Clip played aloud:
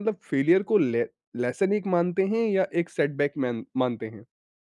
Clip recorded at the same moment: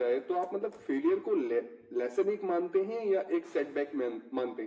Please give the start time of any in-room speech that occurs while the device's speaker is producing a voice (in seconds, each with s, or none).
none